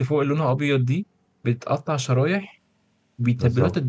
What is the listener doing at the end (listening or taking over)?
listening